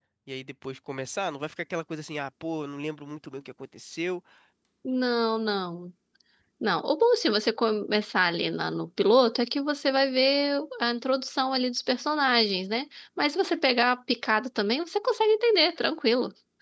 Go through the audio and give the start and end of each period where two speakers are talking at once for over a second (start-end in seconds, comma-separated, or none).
none